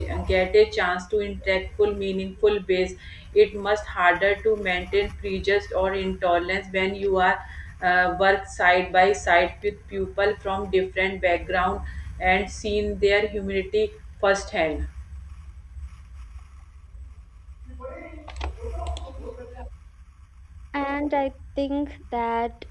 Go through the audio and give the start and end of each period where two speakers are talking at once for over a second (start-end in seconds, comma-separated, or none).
none